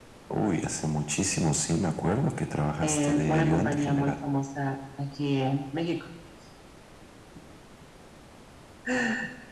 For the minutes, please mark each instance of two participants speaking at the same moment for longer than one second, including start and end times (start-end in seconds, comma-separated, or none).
2.8-4.2